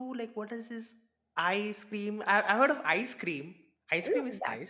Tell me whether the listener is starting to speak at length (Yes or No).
Yes